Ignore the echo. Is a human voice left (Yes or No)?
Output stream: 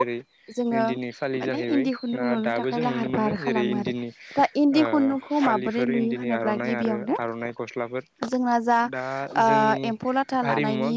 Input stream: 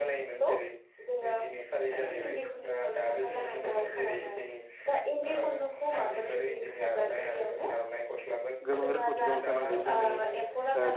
Yes